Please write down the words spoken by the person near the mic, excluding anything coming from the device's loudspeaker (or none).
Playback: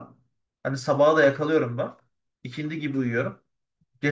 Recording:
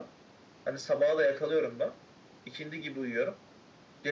none